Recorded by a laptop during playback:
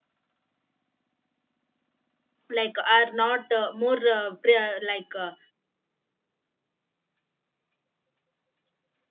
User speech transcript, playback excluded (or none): like are not uh, more uh, pre- like uh,